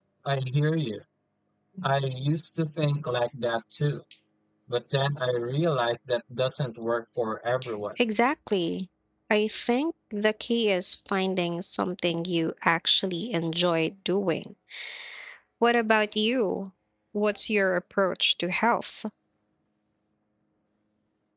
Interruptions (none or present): none